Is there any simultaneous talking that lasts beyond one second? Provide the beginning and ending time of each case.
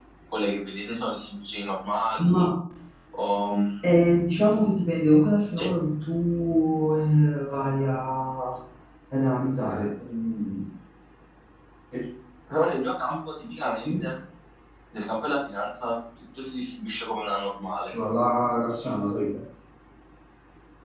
none

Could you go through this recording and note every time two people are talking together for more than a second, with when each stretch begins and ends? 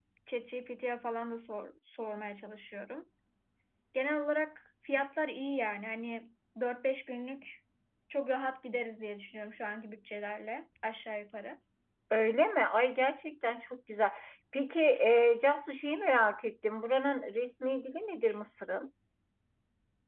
none

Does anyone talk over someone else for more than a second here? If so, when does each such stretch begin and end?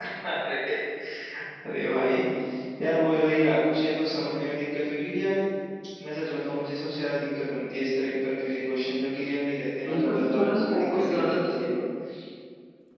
9.9-11.7

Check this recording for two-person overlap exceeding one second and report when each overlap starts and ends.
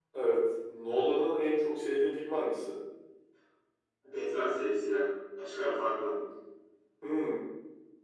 none

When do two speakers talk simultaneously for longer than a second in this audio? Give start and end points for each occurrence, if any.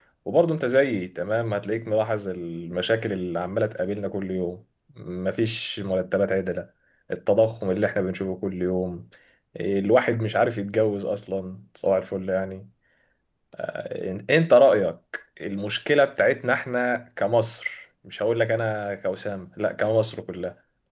none

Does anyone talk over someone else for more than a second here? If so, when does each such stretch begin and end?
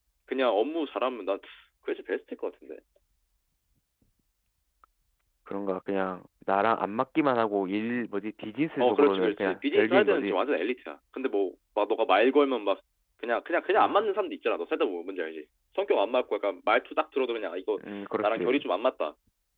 8.8-10.3

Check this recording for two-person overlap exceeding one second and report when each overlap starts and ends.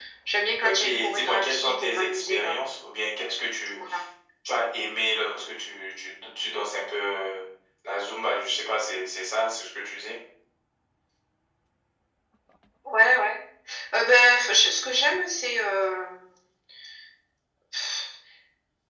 0.6-2.5

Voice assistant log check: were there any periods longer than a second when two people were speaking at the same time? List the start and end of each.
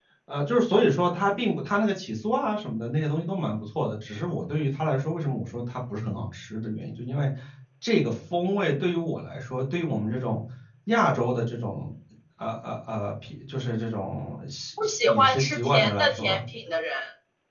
14.8-16.4

